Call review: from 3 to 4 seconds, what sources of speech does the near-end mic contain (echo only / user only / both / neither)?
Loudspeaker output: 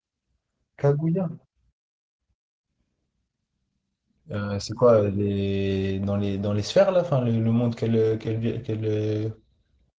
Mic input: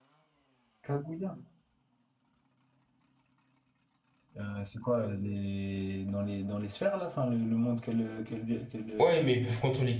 neither